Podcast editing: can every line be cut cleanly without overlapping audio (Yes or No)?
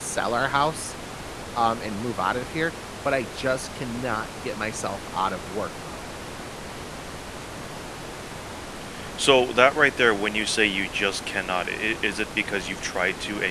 Yes